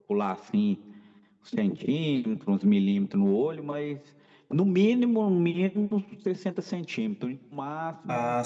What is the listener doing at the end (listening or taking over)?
taking over